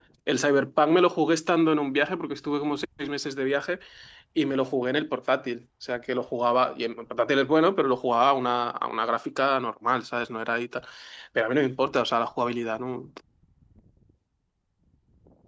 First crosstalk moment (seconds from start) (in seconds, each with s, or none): none